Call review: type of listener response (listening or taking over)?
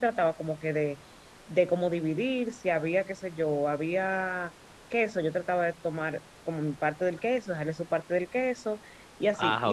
listening